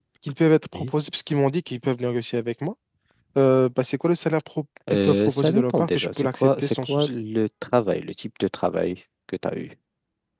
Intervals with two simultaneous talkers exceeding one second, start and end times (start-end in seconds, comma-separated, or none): 4.9-7.1